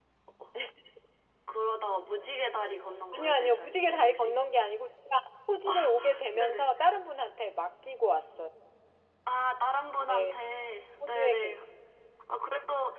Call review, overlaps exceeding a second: present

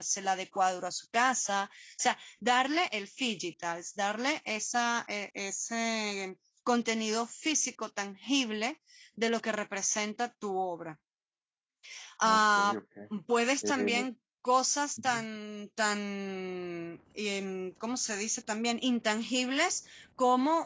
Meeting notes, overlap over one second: none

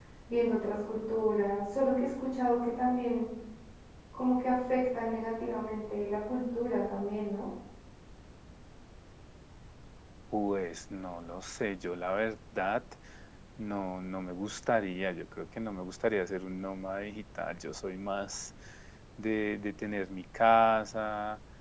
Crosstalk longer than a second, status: none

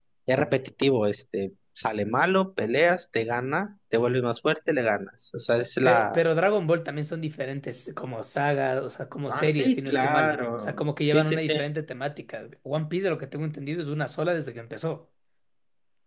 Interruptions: present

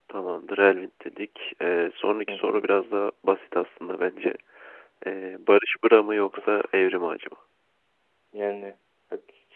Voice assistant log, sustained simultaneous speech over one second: none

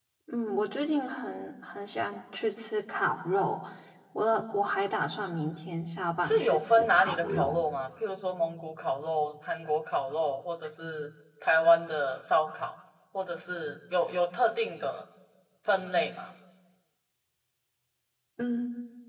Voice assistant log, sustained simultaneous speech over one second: present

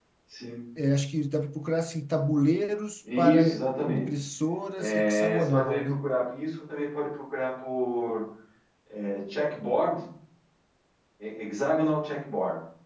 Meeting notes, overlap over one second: present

